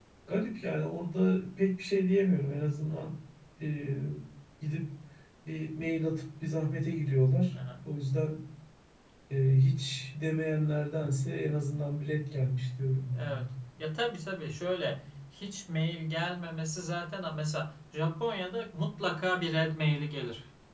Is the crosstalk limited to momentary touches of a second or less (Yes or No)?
Yes